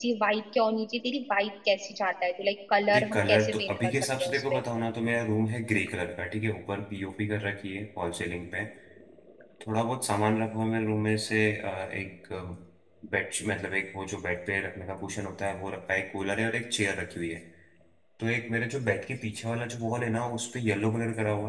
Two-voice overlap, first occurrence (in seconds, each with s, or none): 2.9 s